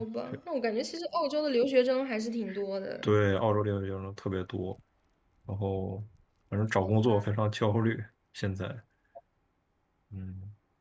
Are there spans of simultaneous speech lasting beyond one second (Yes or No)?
No